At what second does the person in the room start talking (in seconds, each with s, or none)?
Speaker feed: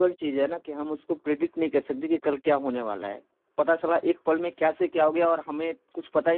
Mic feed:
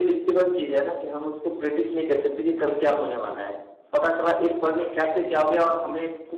none